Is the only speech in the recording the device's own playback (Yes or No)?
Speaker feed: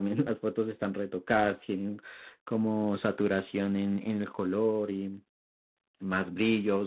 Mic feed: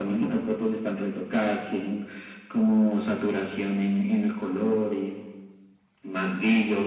Yes